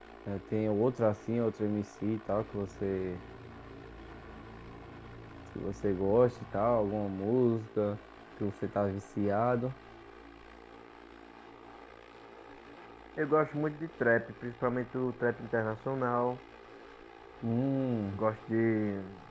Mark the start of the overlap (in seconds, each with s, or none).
none